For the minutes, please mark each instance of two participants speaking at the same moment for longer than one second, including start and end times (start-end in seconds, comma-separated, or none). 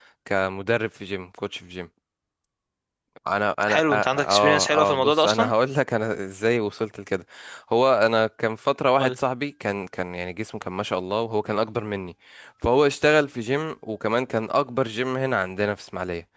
3.7-5.5